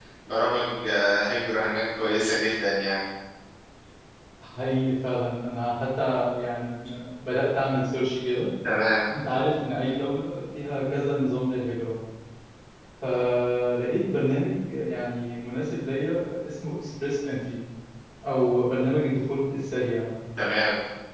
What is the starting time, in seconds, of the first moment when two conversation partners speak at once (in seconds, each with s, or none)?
none